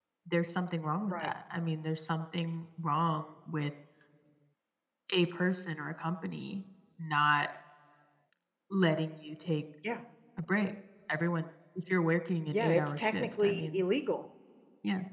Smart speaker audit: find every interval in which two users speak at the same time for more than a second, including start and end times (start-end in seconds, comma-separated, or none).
12.5-13.8